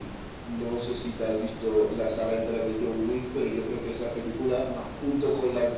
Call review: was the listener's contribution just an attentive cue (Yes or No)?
Yes